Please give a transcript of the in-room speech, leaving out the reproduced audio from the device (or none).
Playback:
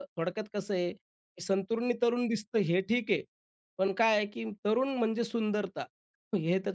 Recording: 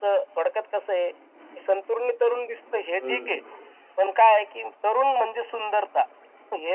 हं, हं.